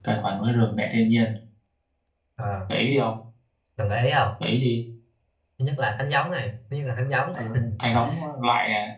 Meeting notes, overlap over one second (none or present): none